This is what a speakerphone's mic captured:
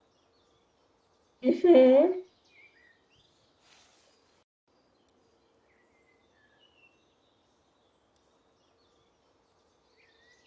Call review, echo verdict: none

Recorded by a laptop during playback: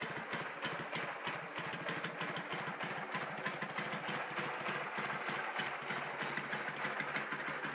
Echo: none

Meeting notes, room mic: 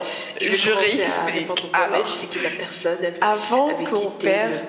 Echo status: present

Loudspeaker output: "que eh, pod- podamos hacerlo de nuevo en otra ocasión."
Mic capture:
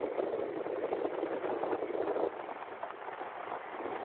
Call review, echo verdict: none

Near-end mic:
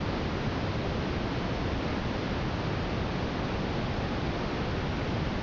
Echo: none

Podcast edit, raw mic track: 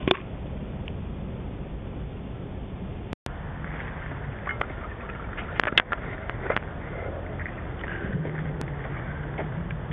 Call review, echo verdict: none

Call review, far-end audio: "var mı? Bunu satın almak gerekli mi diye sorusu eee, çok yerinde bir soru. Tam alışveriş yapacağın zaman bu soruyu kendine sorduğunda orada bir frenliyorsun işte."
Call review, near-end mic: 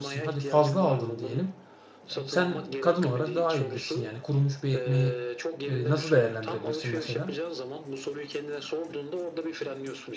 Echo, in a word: present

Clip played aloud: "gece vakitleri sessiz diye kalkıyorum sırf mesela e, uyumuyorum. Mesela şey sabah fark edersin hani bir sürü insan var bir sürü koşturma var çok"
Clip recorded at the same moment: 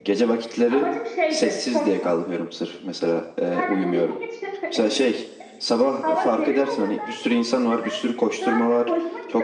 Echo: present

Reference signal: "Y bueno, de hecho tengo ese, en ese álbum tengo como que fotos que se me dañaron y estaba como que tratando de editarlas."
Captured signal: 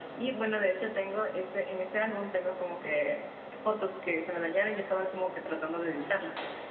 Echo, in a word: present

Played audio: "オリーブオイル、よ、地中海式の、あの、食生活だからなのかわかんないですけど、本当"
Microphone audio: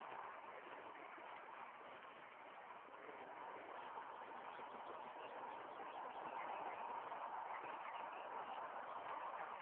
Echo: none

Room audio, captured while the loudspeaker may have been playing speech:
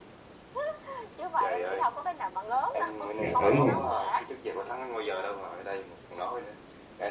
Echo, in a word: present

